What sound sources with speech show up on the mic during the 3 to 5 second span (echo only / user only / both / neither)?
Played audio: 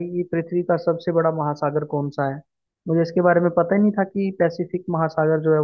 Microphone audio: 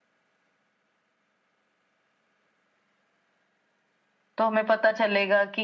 user only